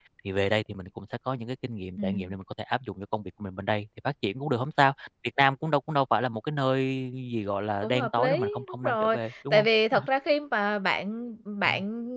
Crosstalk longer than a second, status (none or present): present